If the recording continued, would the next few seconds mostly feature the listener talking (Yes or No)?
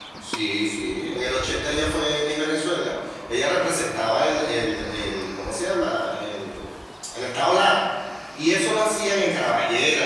No